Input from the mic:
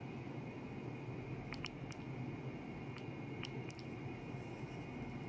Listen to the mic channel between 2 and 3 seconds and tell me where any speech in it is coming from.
neither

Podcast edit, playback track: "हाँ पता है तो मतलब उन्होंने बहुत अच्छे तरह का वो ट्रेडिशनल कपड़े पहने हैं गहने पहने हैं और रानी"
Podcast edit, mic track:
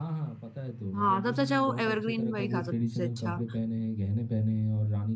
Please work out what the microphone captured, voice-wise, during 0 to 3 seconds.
both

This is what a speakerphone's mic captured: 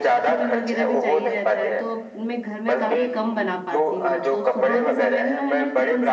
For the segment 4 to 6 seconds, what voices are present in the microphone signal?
both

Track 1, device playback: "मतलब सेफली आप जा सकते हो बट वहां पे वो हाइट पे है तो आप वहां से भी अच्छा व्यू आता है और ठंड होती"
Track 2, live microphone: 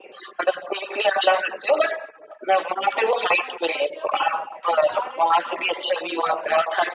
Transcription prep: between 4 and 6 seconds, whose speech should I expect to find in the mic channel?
both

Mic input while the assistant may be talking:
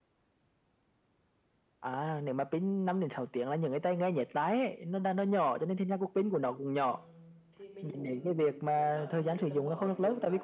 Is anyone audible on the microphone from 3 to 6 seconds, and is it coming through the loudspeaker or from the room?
echo only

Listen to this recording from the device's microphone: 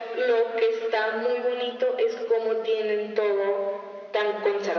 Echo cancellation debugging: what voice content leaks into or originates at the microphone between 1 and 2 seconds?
echo only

